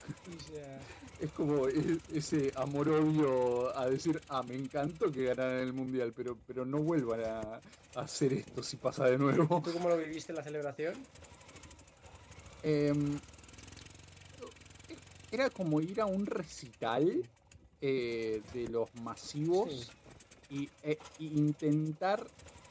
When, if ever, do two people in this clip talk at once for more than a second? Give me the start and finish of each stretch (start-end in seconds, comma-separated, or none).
none